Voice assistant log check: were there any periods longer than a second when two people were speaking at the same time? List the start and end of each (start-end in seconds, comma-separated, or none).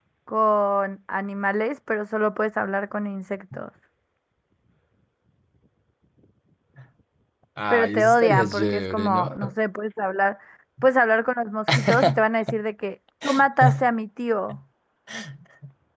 7.7-9.4